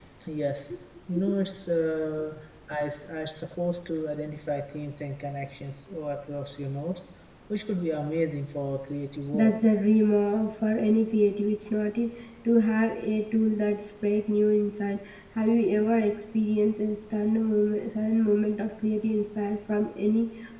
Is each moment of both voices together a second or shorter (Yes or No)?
Yes